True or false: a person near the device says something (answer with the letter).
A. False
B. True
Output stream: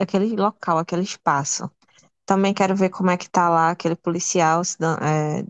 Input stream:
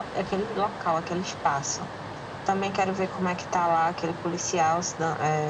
A